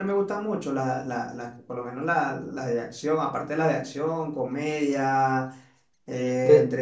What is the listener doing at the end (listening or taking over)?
listening